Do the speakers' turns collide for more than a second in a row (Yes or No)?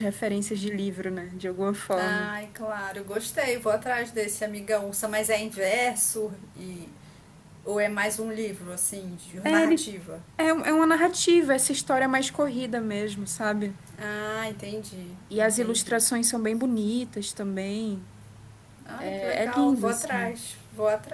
Yes